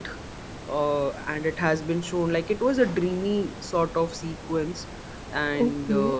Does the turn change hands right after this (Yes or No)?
Yes